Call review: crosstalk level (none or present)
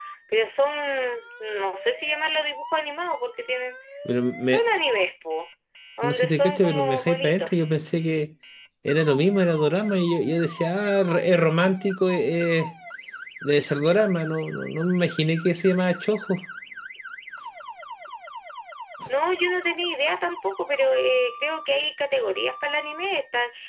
present